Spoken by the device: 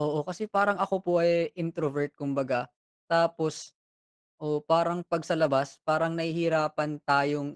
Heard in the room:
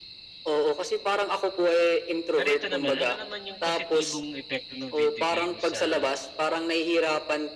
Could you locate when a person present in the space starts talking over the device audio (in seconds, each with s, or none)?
2.3 s